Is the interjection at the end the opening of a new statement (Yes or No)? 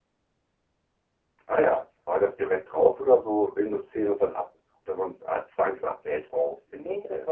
Yes